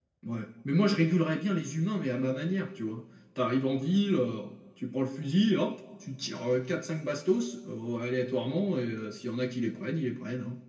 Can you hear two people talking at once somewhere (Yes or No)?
No